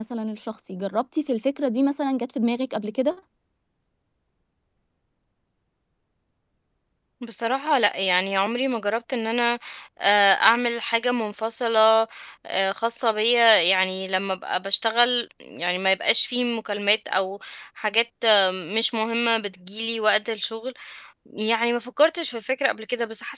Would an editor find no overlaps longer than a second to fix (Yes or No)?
Yes